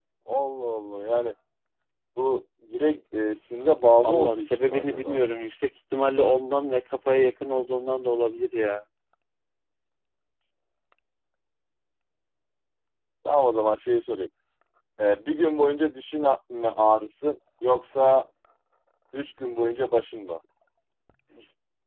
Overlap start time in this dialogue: 4.0 s

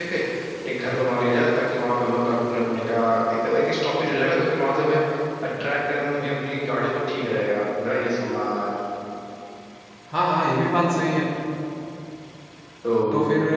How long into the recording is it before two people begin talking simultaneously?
none

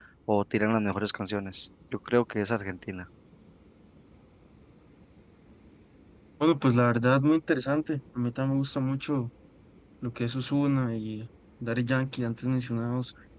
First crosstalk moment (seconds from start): none

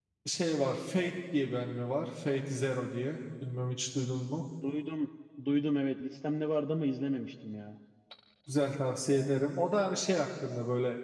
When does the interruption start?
none

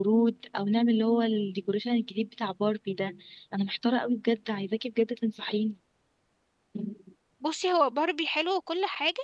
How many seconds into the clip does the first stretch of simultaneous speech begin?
none

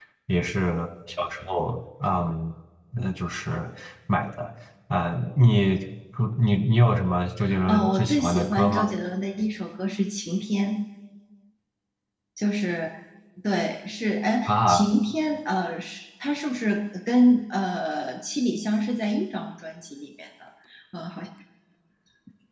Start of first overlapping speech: 7.7 s

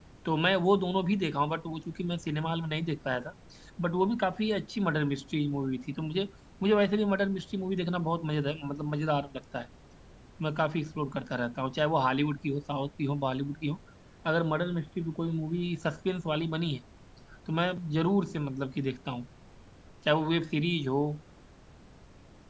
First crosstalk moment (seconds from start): none

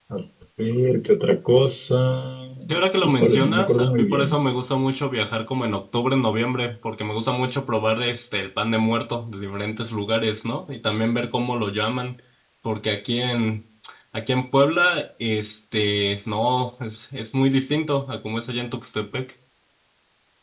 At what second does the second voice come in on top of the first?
3.0 s

